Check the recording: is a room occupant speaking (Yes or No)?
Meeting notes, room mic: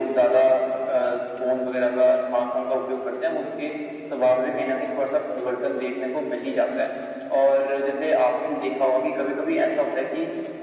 No